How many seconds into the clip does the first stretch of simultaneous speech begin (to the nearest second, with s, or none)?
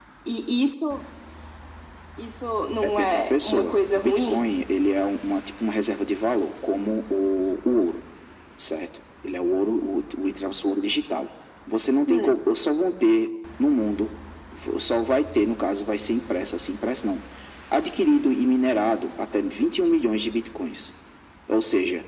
3 s